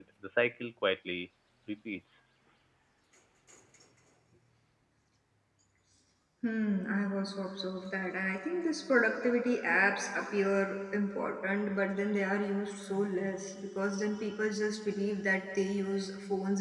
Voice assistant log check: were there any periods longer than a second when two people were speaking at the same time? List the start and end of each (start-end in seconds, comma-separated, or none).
none